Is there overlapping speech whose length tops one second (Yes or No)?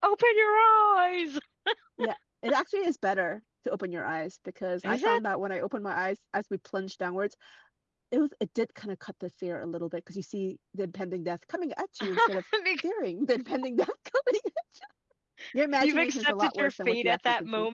Yes